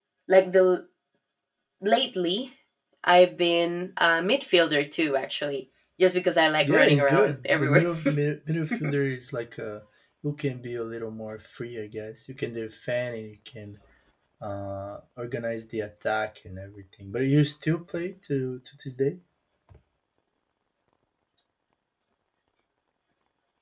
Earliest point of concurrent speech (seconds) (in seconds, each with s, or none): 6.6 s